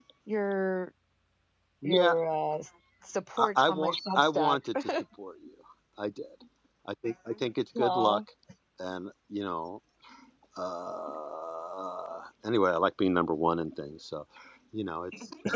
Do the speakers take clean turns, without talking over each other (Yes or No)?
No